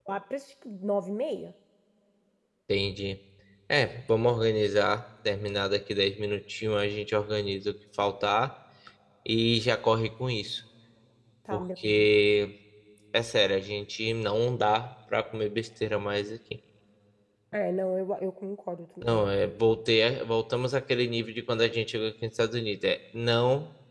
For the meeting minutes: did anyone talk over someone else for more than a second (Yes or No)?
No